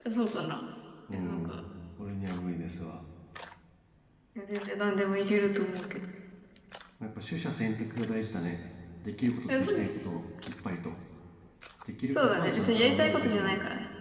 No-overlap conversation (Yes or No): No